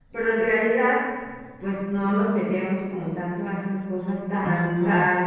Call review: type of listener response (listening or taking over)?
listening